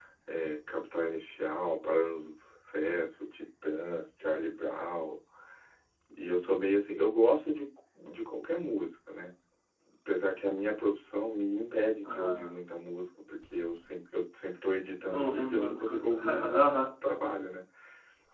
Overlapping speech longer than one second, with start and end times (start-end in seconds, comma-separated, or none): 15.1-16.9